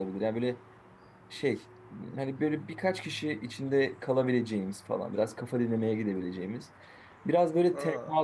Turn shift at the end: No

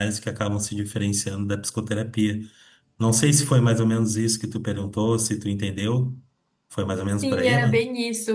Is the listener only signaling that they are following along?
No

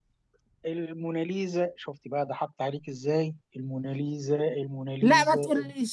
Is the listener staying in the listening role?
No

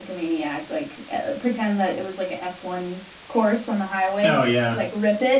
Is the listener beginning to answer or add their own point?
No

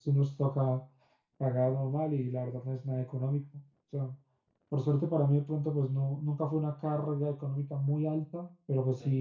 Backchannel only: Yes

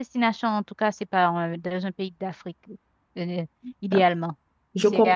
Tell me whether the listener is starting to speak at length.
Yes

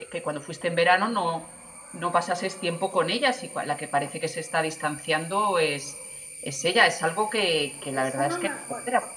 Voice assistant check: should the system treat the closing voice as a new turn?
Yes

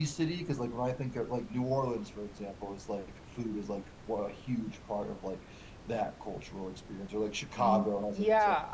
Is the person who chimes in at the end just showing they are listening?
No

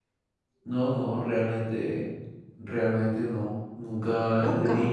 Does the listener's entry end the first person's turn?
No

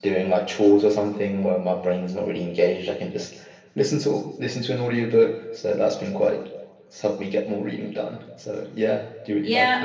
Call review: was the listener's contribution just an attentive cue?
No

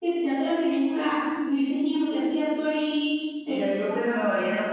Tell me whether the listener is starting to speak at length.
Yes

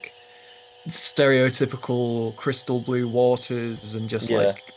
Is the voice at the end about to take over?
No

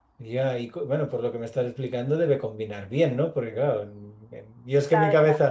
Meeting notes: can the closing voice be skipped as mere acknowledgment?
Yes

